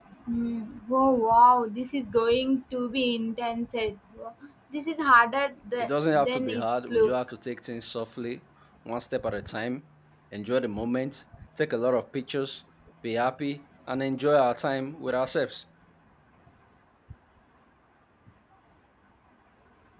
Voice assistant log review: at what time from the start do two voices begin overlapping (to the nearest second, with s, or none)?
6 s